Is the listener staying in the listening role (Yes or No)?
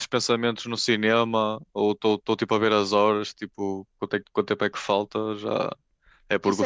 No